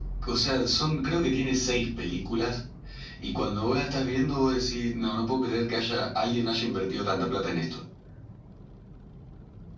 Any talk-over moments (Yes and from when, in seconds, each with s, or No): No